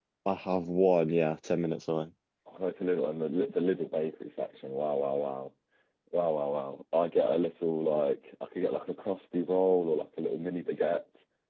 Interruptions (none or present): none